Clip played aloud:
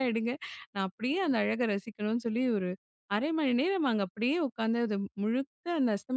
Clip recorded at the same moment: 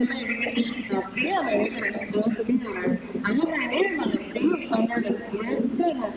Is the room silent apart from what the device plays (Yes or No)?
Yes